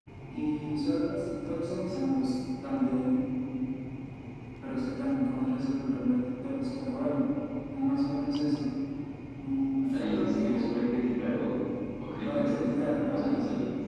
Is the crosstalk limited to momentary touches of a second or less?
No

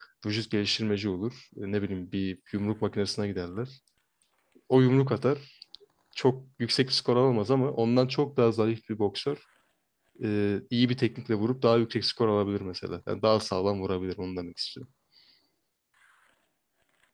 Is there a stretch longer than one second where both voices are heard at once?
No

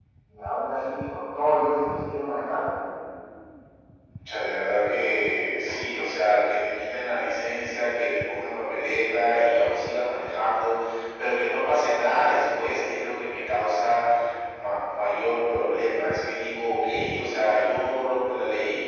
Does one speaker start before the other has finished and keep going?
No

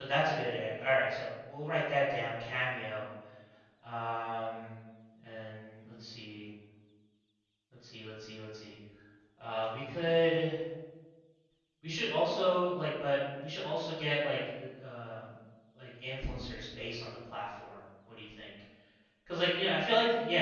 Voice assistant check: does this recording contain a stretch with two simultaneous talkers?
No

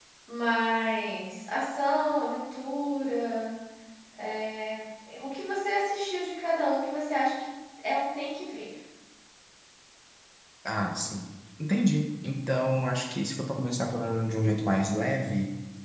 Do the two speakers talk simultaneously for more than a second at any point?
No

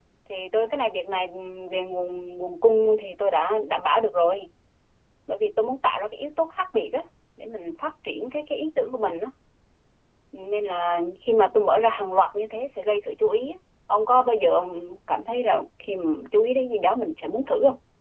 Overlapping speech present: No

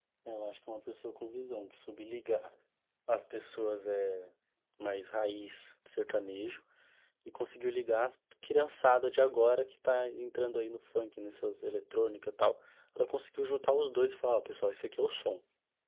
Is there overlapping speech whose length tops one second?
No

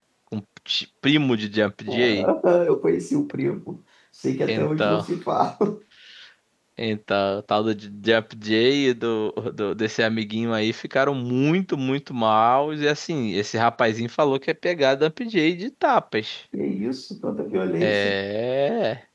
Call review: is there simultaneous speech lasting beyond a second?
No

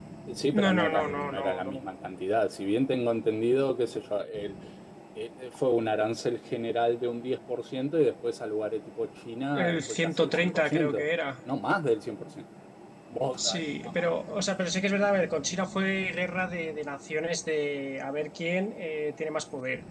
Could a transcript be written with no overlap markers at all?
No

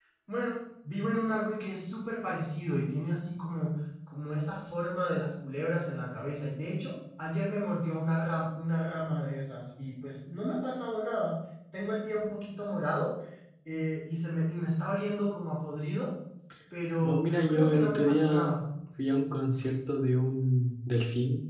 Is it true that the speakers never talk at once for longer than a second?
No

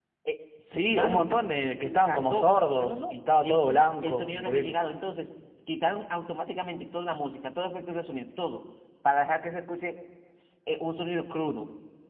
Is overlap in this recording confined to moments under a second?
No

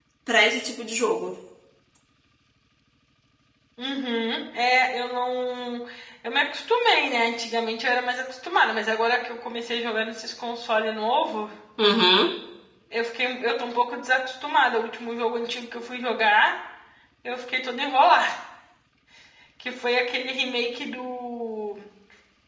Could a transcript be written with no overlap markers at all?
Yes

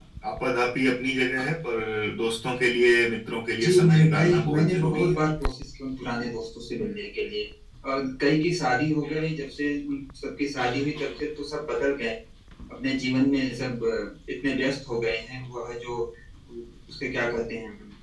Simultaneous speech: Yes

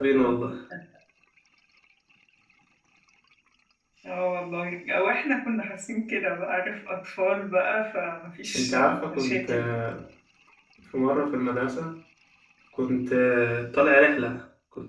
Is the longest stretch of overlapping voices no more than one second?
No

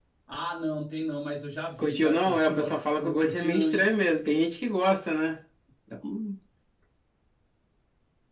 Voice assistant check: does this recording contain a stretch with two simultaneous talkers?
Yes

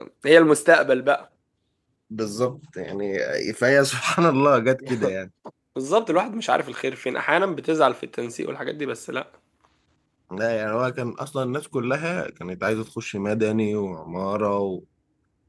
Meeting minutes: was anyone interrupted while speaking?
No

